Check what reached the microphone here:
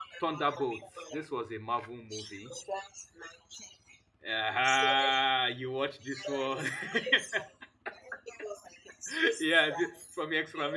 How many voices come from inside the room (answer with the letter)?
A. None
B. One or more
B